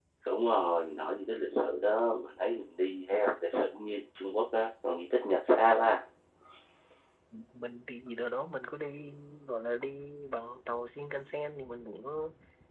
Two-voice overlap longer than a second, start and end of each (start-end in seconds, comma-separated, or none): none